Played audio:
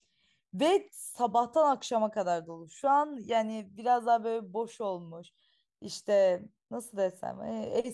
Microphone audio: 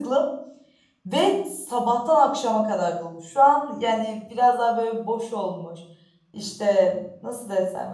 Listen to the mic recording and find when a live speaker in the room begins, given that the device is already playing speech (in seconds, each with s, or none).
none